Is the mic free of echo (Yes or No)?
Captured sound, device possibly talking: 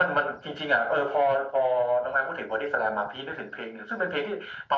No